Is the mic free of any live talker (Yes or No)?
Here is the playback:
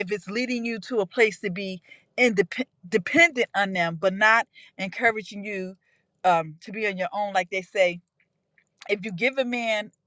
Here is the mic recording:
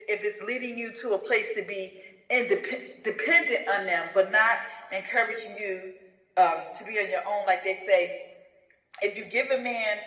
Yes